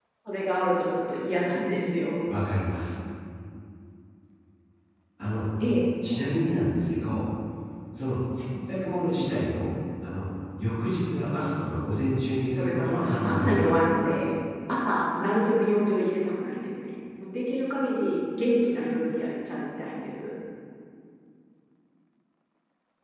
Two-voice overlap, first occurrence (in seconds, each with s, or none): 12.6 s